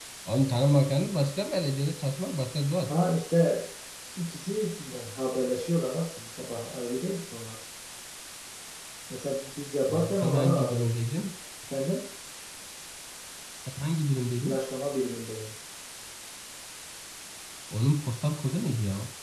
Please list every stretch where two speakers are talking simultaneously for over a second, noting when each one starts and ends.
9.9-11.2

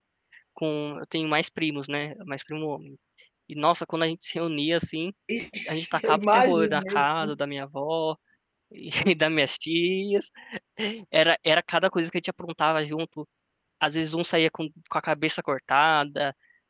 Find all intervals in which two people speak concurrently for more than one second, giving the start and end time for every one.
5.7-7.0

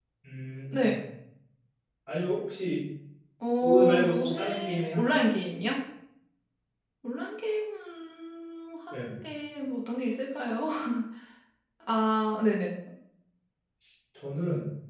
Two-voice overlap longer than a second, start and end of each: 3.6-5.0

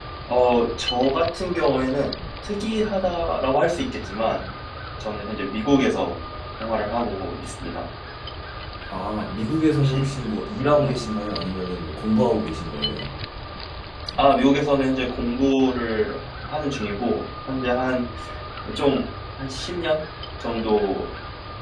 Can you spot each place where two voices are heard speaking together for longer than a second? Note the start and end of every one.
none

